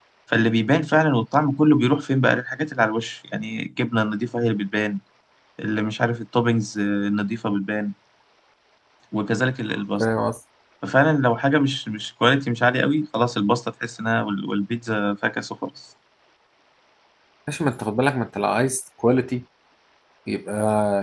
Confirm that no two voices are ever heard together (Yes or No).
Yes